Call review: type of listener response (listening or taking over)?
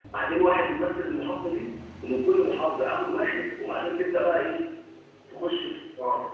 taking over